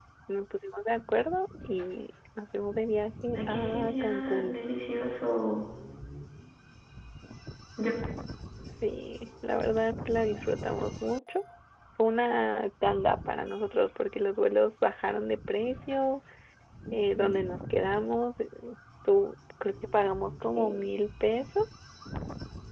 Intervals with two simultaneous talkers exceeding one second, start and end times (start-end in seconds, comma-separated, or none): 3.4-4.6